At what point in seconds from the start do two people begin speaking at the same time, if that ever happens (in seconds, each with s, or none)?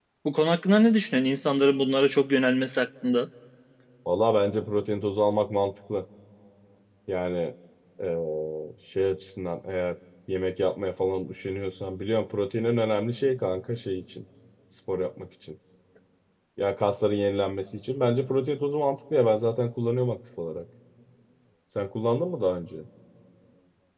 none